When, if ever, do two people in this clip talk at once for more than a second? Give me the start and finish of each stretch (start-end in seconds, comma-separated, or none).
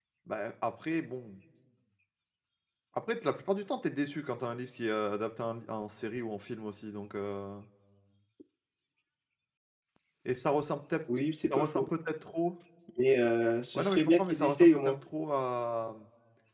13.8-14.9